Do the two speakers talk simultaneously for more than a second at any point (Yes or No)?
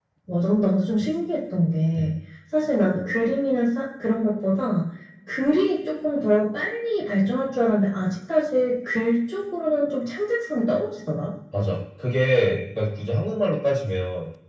No